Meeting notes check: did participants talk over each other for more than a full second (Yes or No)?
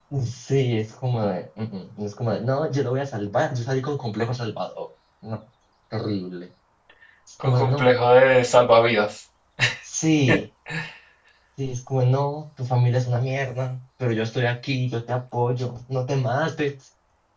No